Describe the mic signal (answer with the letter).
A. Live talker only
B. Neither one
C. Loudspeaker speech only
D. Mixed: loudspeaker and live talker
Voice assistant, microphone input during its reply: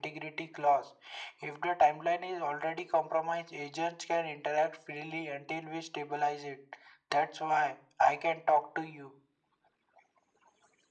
C